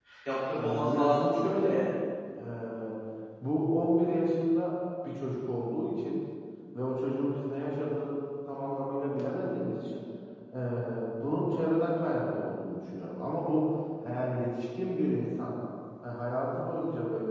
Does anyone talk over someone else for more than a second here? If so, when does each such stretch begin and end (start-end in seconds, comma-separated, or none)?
0.6-1.9